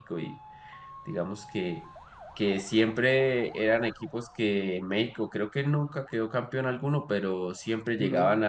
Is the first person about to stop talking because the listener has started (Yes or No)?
No